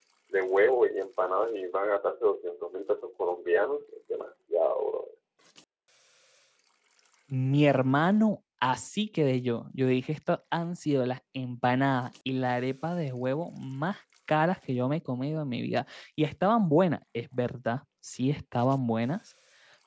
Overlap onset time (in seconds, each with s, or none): none